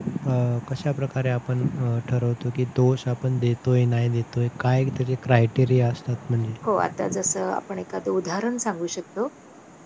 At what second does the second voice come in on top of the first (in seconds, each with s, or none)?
none